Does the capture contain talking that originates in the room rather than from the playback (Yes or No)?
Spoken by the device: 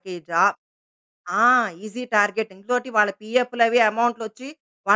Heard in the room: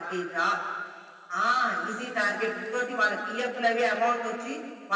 No